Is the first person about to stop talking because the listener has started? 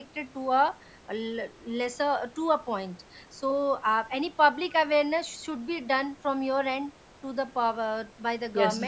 Yes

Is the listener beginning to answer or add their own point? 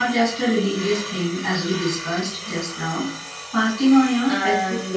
Yes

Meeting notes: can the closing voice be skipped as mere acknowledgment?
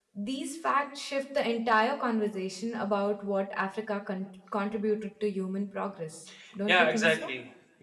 No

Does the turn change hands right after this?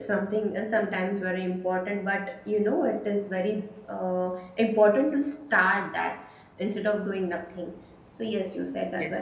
Yes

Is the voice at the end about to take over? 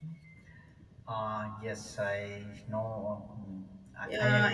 Yes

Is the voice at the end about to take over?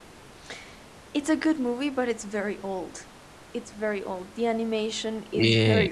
Yes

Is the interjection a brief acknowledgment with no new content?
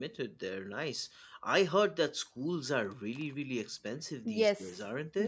No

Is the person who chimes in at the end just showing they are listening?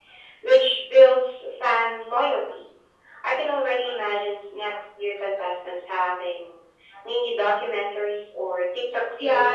No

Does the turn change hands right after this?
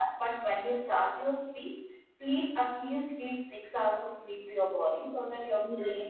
Yes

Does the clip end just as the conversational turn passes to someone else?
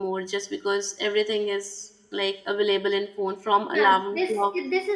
Yes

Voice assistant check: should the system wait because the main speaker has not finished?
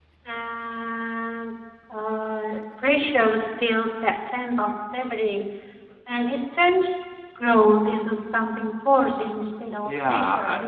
No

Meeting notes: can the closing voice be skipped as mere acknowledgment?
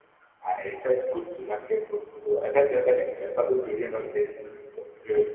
Yes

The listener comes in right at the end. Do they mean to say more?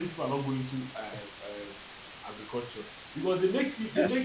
No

